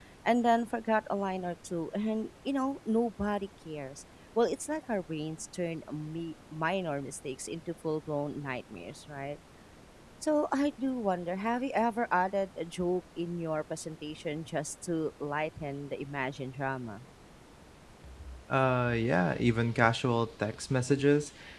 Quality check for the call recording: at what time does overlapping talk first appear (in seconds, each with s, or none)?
none